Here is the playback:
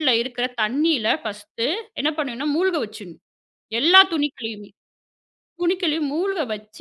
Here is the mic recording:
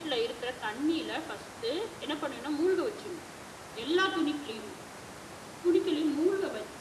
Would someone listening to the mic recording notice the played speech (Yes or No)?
Yes